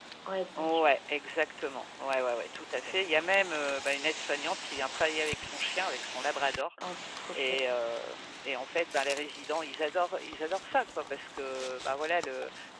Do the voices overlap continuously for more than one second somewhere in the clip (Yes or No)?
No